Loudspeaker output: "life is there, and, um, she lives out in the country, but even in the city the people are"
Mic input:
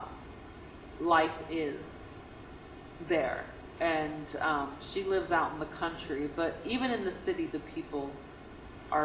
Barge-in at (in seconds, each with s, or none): none